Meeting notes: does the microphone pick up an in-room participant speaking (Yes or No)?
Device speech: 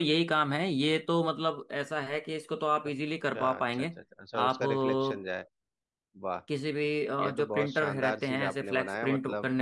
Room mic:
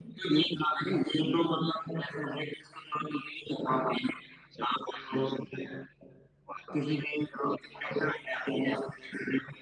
No